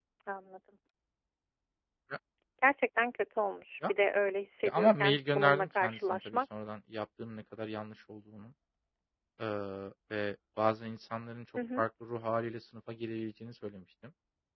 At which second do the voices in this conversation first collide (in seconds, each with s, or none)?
4.7 s